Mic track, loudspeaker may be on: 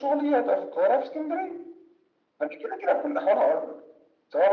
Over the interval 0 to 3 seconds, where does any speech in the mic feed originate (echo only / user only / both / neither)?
echo only